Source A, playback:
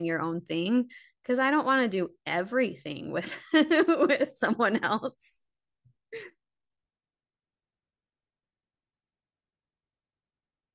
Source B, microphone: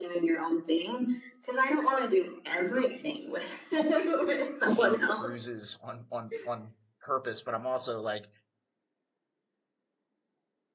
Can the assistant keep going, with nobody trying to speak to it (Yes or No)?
No